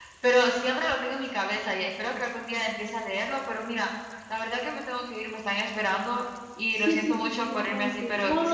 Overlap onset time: 7 s

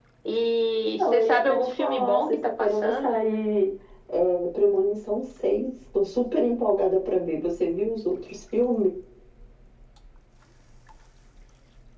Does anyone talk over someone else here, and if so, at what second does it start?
1 s

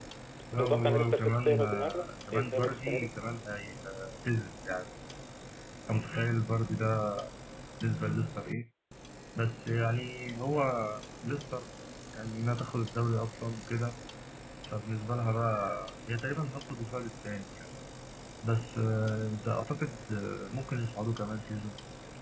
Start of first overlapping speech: 1 s

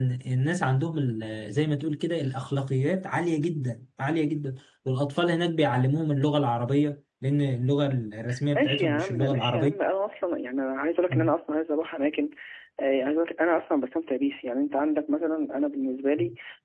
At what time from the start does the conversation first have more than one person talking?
9 s

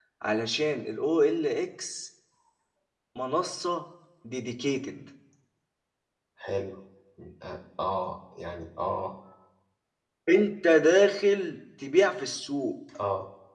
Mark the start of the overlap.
none

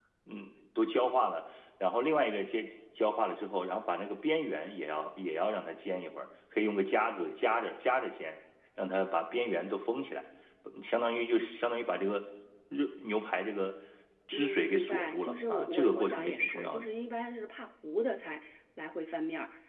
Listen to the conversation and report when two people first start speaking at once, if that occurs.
14 s

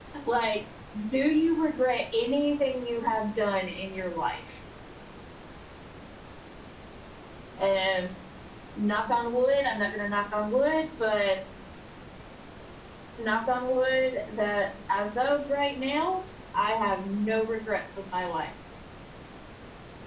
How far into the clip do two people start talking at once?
none

